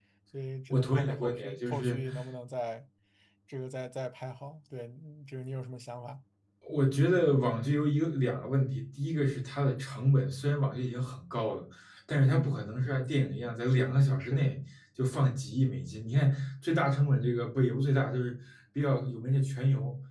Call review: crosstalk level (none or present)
present